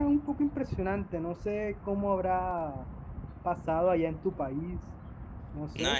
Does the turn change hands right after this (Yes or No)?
Yes